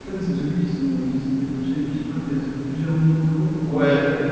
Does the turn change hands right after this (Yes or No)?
Yes